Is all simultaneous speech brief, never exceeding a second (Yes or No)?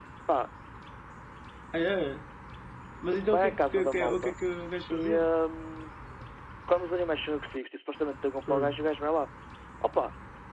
No